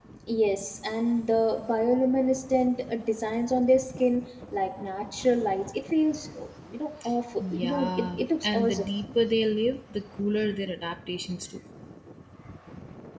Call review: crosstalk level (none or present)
present